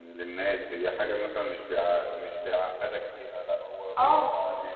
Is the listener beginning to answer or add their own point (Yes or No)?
No